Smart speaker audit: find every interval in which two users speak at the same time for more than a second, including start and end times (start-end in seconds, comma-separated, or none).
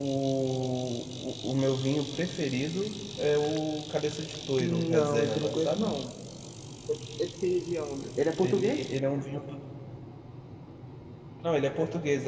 4.6-5.9